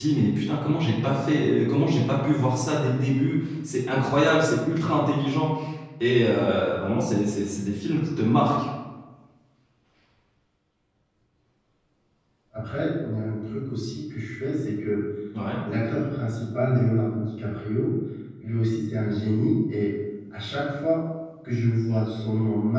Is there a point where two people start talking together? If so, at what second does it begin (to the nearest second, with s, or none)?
none